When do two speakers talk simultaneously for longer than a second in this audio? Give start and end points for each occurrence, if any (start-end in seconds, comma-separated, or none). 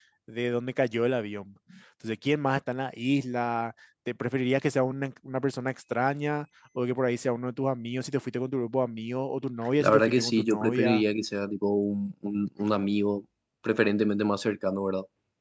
9.8-11.0